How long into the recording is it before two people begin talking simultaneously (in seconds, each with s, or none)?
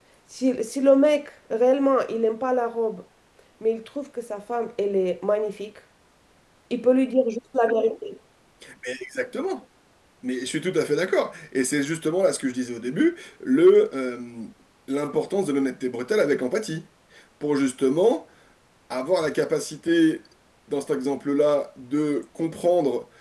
none